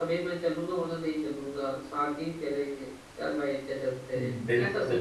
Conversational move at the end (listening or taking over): taking over